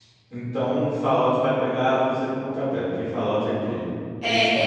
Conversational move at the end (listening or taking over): taking over